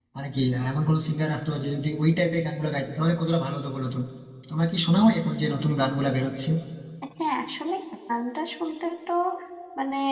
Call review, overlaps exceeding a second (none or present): none